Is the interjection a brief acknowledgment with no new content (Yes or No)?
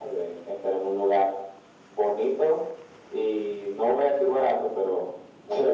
No